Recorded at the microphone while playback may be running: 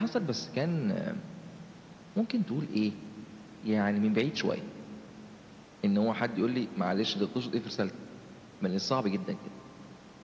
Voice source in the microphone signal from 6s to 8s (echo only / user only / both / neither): echo only